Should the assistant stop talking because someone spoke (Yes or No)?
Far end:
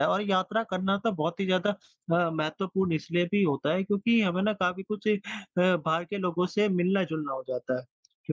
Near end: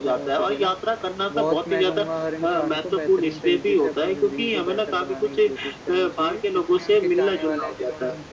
Yes